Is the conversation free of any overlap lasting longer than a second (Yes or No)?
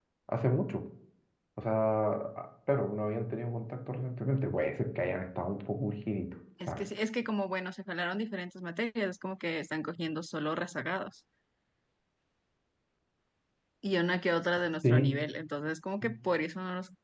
Yes